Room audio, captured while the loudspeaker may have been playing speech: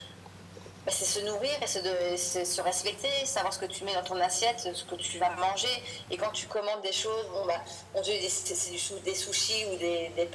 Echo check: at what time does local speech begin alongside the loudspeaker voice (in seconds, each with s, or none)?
none